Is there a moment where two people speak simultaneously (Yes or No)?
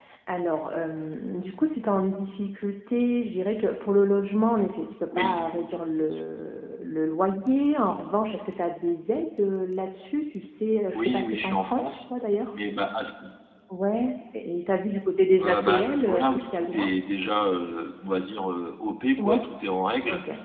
Yes